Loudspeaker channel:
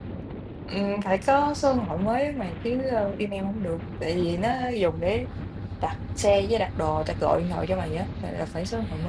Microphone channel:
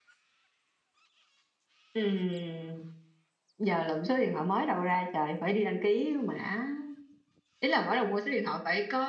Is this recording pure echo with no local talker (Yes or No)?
No